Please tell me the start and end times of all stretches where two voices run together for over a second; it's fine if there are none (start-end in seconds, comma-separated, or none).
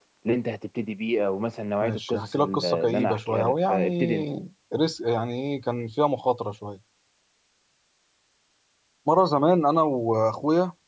1.8-4.2